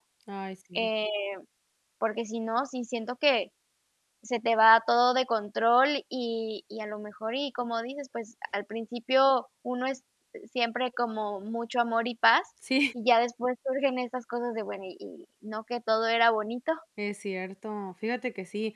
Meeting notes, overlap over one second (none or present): none